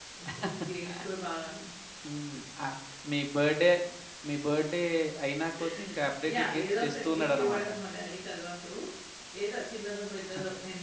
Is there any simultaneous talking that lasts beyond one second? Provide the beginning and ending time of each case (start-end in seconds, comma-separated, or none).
6.3-7.7